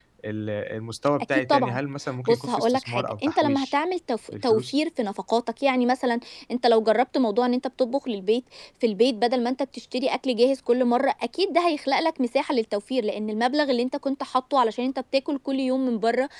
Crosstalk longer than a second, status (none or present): present